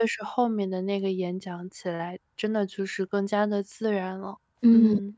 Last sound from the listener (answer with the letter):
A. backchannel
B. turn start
B